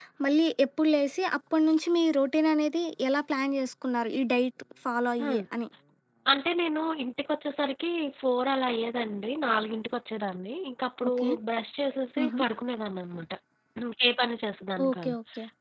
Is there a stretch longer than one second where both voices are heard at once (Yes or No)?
No